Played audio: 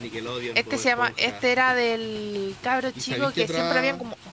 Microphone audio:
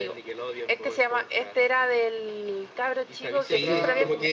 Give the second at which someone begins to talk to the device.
3.4 s

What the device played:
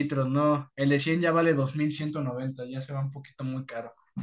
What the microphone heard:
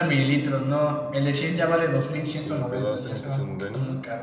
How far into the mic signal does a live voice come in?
2.2 s

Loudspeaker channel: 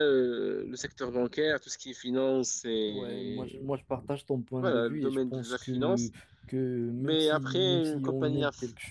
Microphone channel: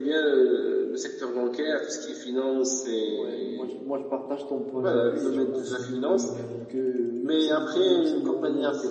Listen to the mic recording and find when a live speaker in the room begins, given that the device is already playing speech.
4.7 s

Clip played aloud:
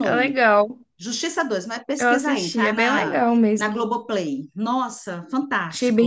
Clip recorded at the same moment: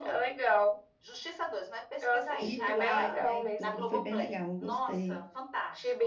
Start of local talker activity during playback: 2.3 s

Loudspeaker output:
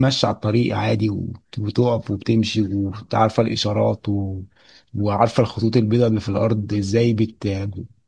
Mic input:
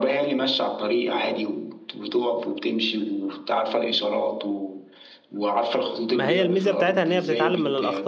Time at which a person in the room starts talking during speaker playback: 6.1 s

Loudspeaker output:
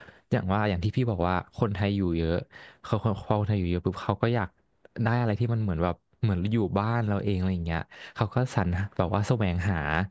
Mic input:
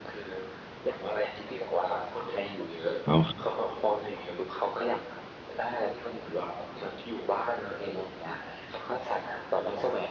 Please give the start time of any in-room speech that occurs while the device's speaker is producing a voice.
3.0 s

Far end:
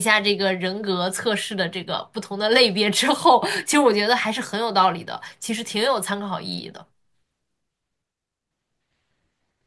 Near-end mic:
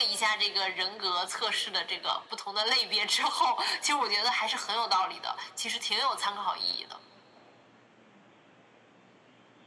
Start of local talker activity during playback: none

